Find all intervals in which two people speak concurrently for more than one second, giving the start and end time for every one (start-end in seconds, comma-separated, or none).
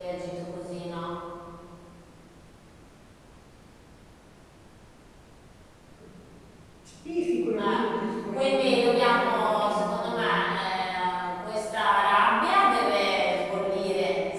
8.3-10.3